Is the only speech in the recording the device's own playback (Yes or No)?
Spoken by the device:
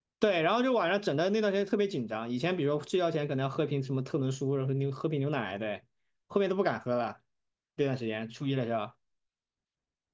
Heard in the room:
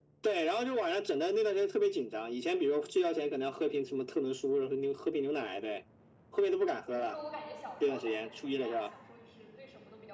No